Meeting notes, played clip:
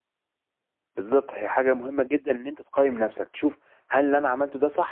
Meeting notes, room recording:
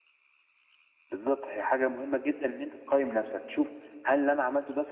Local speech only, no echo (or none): none